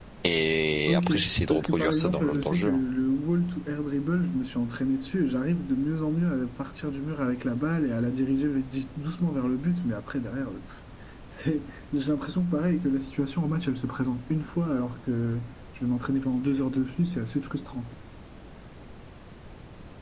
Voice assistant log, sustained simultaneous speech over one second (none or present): present